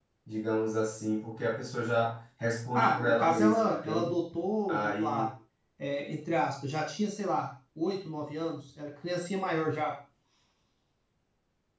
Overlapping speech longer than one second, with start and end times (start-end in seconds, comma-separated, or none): 2.7-4.2